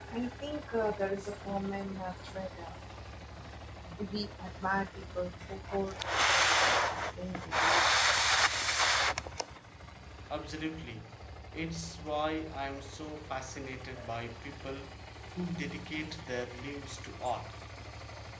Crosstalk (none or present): none